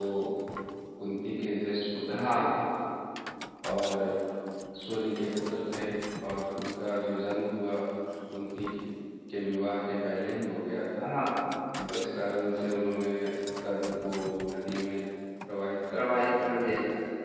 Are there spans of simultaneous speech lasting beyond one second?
No

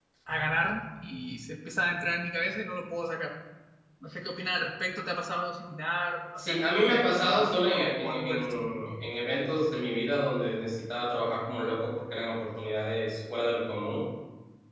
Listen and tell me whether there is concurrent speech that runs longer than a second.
Yes, from 6.4 s

